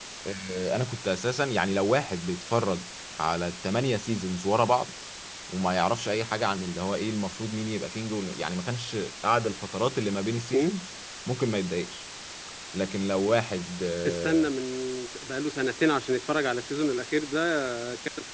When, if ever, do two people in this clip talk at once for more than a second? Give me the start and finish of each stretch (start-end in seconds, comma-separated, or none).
none